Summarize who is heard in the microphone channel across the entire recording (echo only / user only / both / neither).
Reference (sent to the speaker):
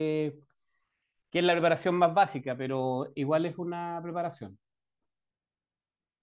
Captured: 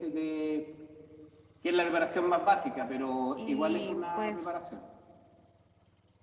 both